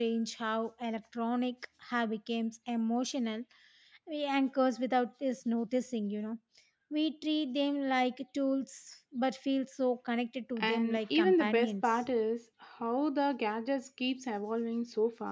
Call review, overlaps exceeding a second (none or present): present